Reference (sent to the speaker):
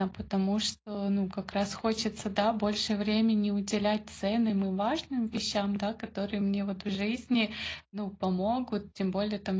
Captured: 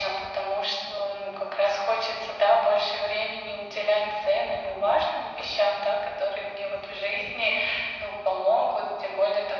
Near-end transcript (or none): none